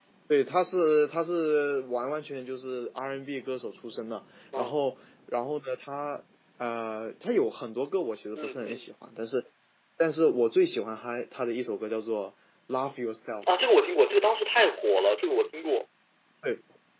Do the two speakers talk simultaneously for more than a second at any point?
No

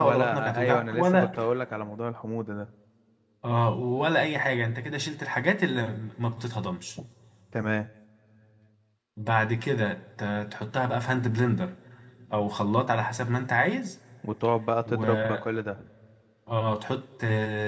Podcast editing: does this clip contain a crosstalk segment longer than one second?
Yes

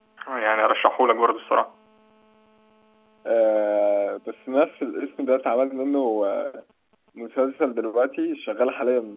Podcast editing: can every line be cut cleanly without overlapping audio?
Yes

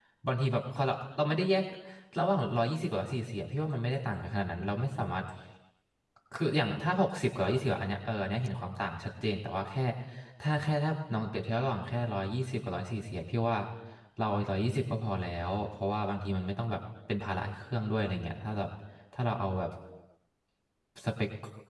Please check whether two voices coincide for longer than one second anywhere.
No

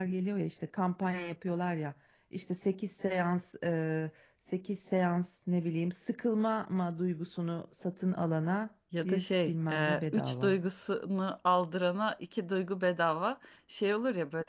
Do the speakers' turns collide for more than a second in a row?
Yes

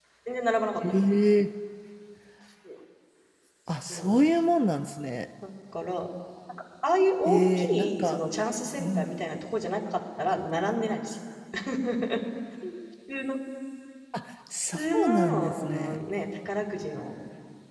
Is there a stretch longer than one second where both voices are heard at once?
Yes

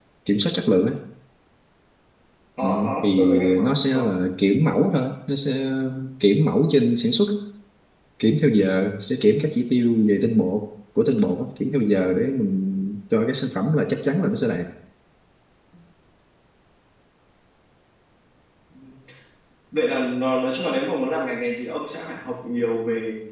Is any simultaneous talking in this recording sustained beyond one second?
Yes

